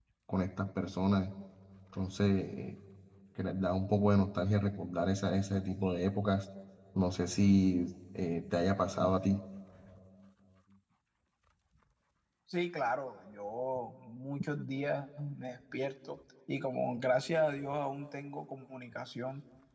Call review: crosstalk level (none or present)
none